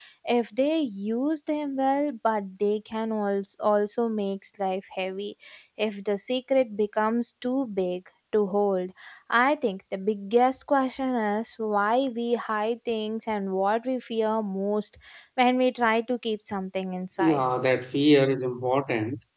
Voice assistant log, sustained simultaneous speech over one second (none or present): none